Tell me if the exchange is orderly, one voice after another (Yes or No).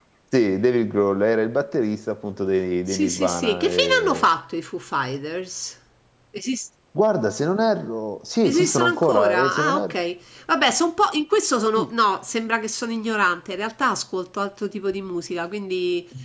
No